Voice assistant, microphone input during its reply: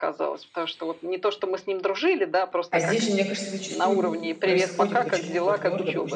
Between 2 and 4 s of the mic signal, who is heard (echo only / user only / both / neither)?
both